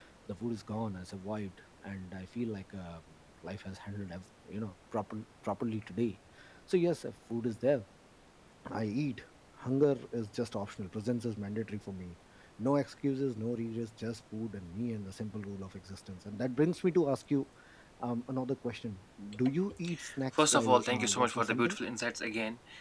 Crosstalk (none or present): present